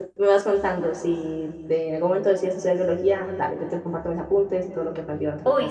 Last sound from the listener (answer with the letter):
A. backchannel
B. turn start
B